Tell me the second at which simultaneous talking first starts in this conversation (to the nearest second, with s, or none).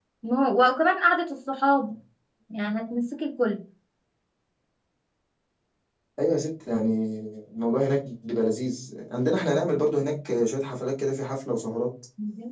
none